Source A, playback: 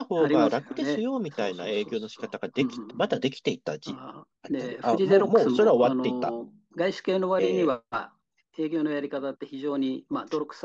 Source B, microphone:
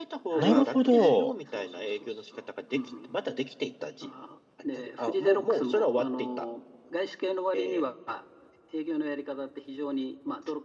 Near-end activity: present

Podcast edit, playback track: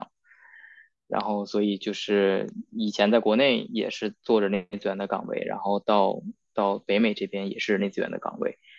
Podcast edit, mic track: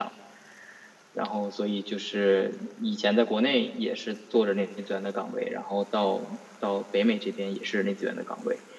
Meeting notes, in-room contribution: none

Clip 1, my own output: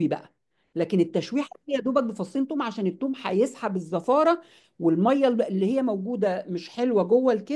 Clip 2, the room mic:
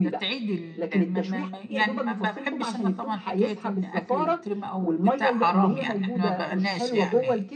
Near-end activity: present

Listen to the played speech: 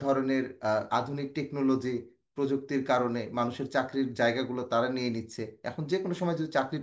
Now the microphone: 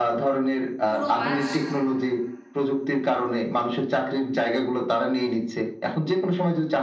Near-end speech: present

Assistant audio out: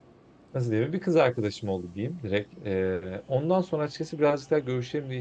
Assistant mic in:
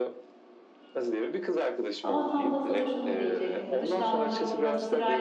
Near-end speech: present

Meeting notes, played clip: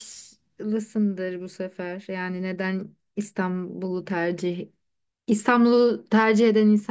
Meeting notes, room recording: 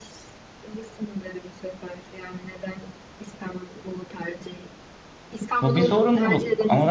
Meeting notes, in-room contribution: present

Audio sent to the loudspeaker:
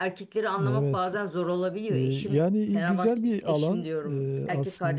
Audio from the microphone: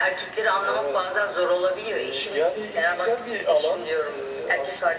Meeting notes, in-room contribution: none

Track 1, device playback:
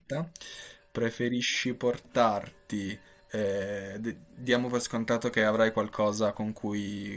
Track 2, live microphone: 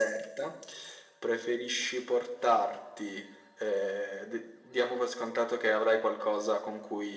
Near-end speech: none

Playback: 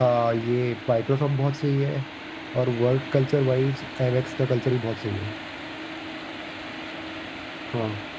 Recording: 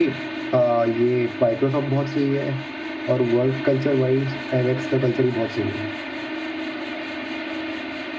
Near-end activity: none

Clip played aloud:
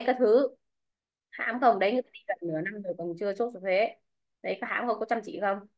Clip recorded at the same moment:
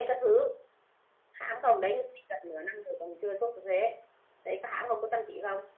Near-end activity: none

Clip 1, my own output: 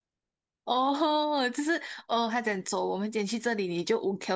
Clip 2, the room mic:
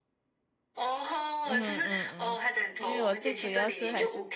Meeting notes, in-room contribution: present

